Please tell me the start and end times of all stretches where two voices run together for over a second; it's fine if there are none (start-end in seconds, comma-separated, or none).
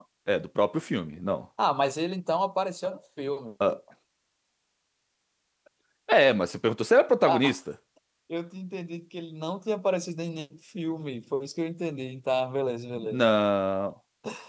none